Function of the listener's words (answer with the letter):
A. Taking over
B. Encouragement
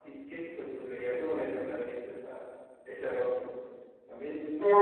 A